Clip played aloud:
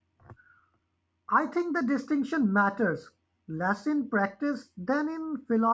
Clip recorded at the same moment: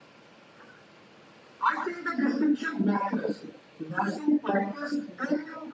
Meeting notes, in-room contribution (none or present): none